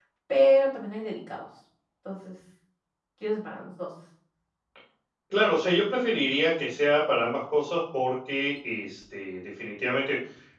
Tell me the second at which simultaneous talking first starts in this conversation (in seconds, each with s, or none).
none